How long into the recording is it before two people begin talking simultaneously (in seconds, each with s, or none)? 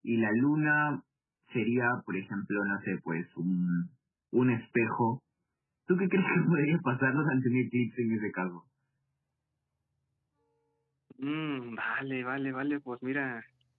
none